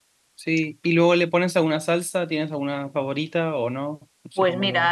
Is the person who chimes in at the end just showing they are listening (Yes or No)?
No